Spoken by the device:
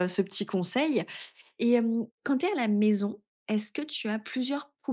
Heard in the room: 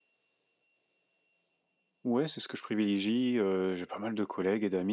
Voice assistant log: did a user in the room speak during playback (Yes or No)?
Yes